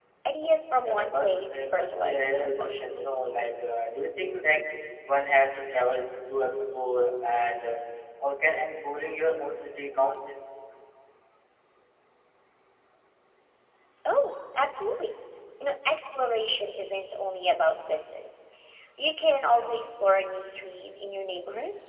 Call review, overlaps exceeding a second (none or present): present